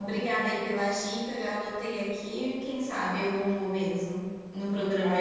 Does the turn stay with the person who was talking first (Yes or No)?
No